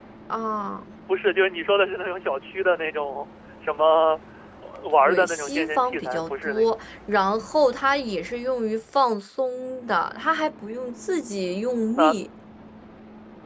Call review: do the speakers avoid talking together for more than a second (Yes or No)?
No